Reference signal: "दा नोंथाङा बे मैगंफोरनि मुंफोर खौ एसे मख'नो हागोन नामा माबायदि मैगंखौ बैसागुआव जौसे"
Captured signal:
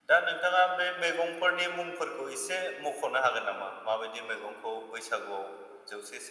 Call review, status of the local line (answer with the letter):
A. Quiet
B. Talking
A